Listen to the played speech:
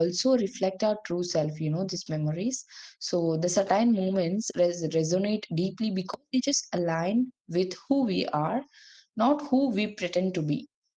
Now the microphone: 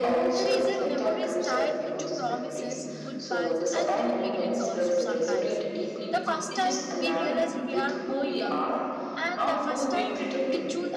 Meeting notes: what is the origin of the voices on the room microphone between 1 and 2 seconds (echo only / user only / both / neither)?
both